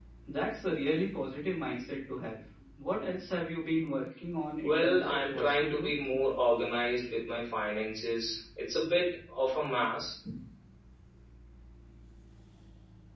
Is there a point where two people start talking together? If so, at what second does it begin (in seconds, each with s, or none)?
4.6 s